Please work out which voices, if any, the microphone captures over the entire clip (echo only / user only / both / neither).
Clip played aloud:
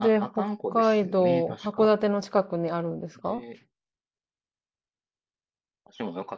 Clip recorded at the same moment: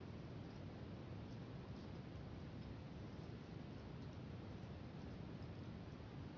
neither